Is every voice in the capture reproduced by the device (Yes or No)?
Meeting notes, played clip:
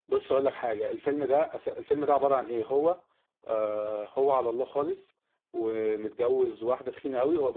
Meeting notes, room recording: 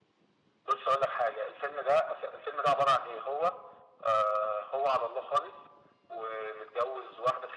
Yes